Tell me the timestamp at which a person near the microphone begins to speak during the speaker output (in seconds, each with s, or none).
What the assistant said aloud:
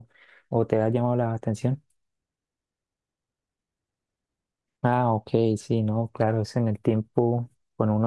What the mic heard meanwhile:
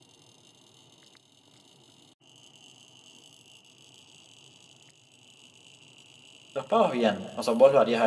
6.5 s